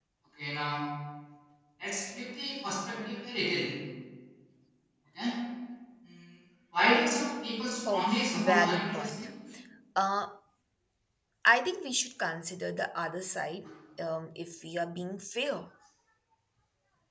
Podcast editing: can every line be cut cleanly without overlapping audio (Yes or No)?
No